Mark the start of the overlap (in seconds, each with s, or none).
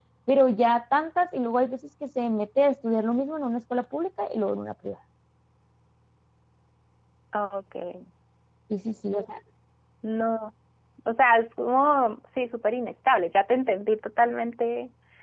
none